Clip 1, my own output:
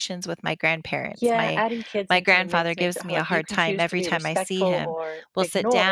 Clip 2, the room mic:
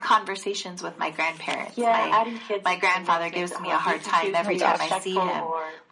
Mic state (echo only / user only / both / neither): both